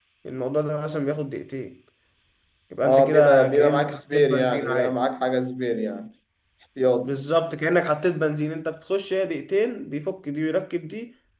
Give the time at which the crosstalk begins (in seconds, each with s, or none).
2.8 s